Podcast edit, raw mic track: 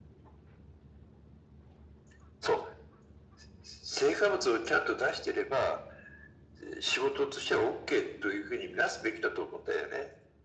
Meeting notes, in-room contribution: none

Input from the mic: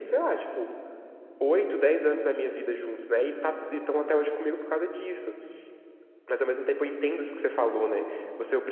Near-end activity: none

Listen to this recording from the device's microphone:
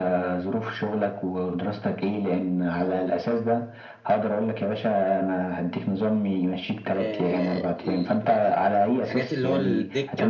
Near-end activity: present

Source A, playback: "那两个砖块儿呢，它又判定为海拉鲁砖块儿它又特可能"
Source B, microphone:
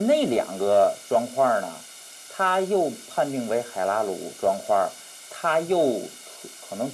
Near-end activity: none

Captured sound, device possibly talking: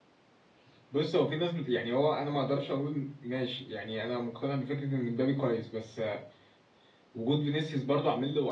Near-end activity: present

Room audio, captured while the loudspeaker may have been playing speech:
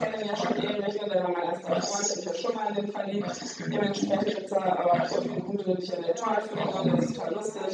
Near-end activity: present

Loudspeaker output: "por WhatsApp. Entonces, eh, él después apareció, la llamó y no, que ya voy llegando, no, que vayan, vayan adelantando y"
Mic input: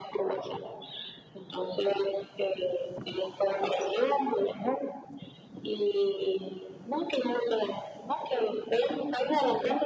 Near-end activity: none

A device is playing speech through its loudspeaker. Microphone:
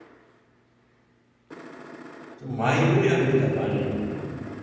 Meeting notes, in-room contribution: present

